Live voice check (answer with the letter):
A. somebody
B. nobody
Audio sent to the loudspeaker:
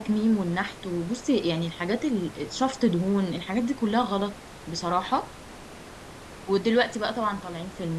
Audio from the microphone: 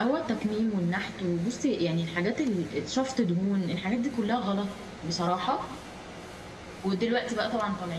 B